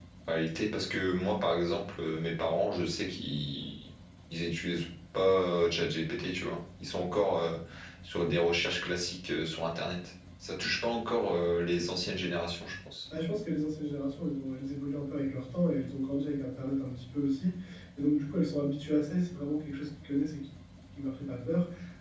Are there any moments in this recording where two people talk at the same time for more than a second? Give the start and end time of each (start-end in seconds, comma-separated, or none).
none